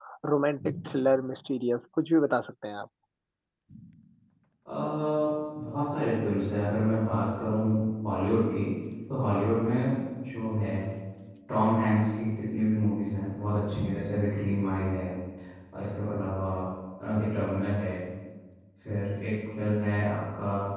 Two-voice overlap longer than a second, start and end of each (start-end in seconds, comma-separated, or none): none